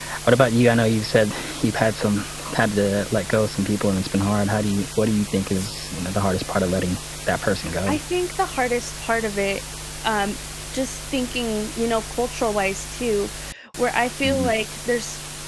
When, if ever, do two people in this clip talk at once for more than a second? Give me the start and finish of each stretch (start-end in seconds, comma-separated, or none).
none